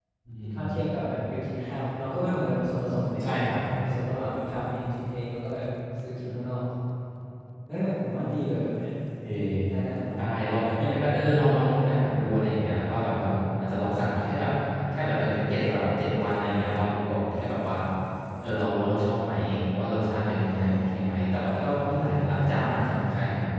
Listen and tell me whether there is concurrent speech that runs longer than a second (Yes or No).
No